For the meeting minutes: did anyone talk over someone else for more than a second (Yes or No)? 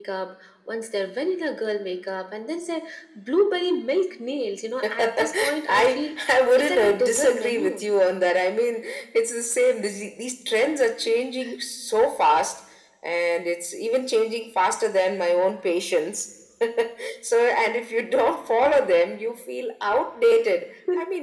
Yes